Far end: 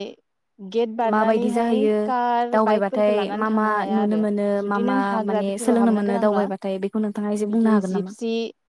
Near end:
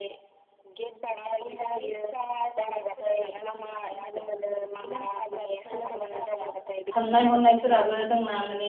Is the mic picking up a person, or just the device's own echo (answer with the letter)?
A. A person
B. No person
A